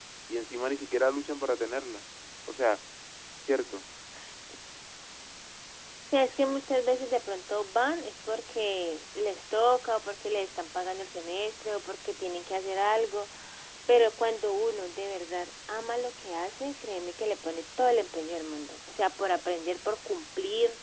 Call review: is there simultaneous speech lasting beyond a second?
No

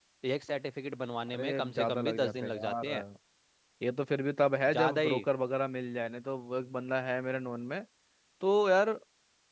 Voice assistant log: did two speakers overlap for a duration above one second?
Yes, from 1.3 s

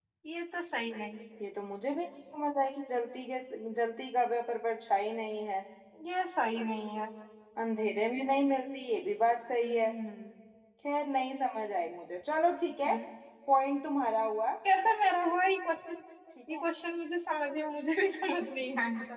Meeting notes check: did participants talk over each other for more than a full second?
No

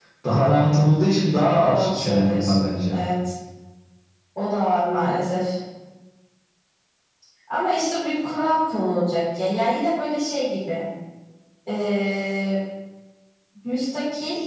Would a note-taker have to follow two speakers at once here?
Yes, from 1.6 s

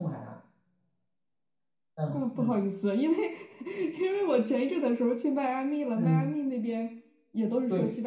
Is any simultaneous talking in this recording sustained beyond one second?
No

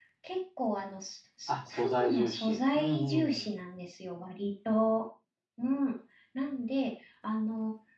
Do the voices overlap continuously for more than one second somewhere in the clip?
Yes, from 1.5 s

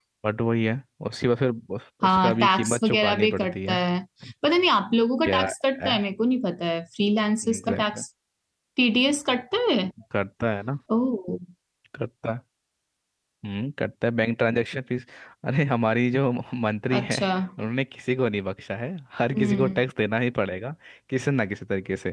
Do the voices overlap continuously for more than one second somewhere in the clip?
Yes, from 2.0 s

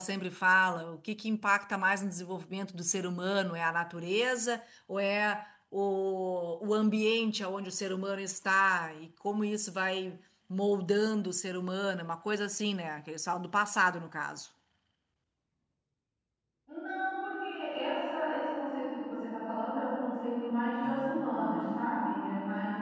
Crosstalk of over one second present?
No

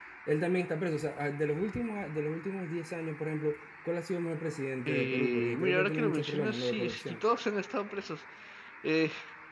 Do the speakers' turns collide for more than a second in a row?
Yes, from 4.9 s

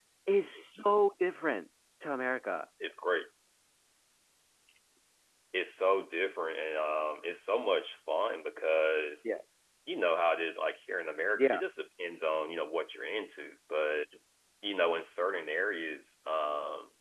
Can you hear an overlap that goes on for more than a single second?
No

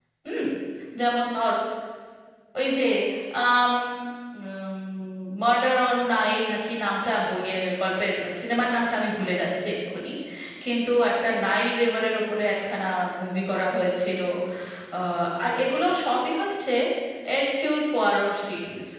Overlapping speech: No

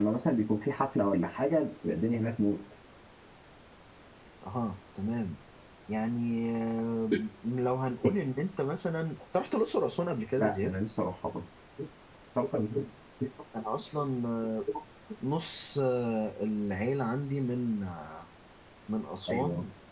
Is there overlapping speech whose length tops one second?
No

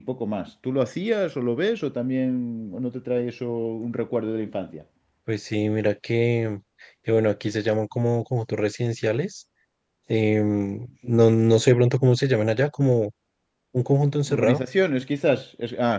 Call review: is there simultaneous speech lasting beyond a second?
No

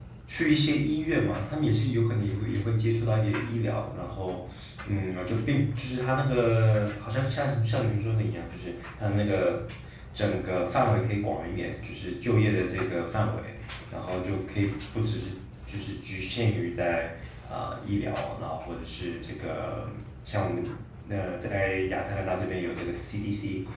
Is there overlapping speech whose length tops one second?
No

